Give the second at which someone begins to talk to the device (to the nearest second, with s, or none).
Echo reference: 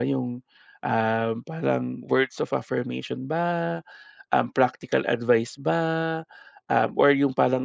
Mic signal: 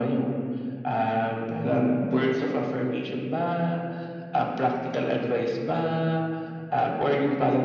none